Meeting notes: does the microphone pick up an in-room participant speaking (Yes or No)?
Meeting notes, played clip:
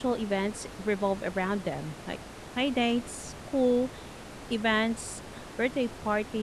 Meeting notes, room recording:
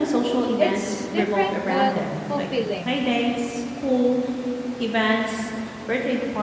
Yes